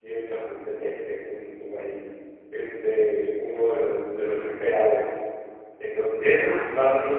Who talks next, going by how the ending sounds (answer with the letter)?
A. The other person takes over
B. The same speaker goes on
B